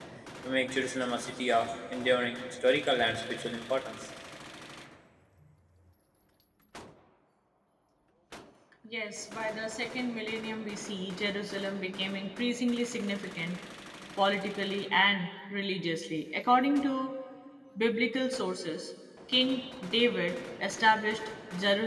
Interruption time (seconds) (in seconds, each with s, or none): none